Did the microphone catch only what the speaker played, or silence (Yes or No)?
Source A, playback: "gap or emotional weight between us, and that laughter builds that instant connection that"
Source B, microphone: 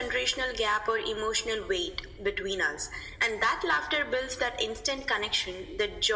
Yes